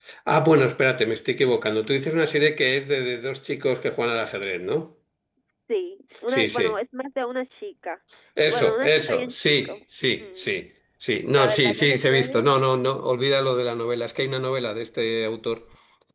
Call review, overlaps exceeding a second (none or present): present